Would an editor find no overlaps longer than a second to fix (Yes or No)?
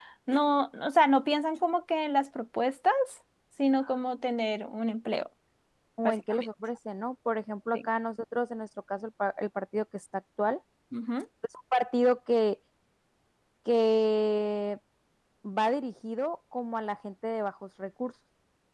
Yes